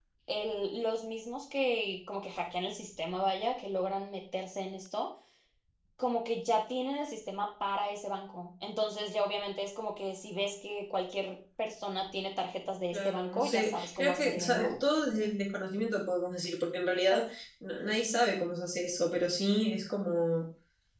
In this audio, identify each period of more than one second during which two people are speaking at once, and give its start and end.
12.9-14.8

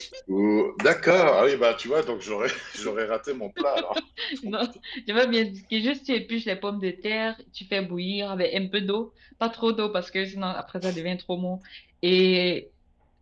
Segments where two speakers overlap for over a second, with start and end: none

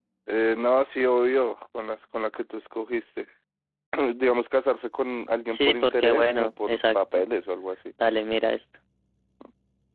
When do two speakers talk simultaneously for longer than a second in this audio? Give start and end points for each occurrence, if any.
5.5-7.2

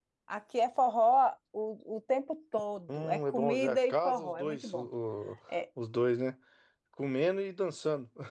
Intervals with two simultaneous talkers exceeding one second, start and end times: 3.0-4.9

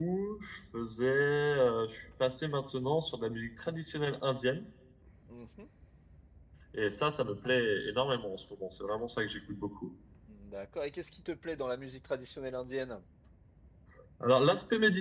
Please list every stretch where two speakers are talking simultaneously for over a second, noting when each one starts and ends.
none

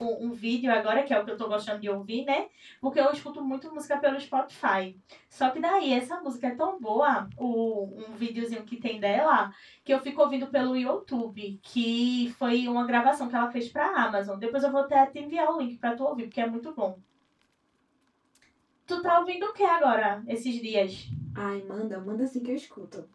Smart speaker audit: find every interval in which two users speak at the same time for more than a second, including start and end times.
none

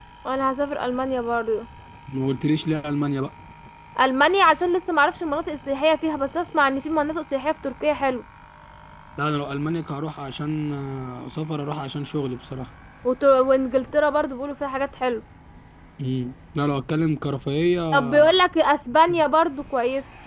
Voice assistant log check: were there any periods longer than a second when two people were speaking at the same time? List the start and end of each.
none

